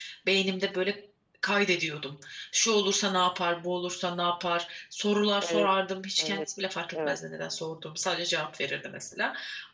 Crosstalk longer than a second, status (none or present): present